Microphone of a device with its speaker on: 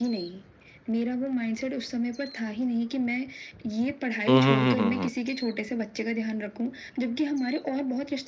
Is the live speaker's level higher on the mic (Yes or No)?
Yes